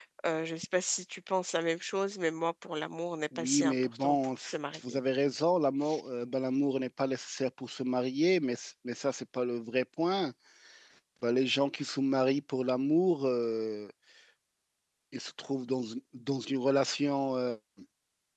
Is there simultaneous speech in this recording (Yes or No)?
Yes